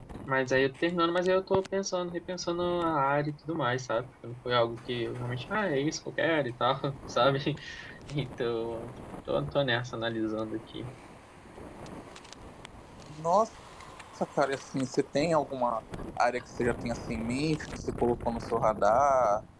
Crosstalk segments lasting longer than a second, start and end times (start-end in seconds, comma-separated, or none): none